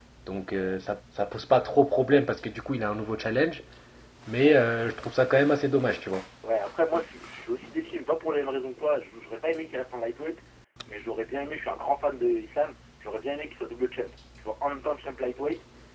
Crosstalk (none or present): none